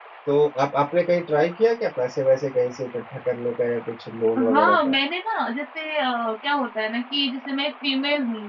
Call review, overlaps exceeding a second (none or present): none